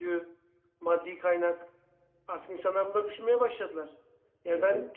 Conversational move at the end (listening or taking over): listening